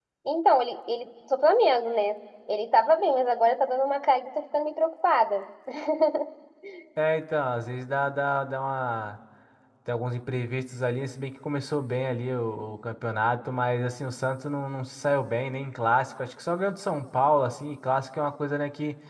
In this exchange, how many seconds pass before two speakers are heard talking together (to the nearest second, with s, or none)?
none